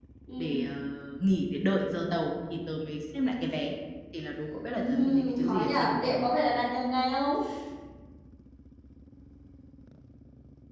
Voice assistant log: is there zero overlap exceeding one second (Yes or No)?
No